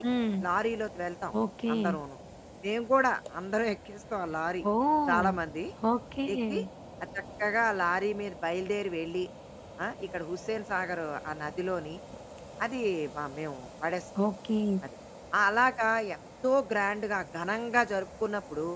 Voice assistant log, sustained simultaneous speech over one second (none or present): none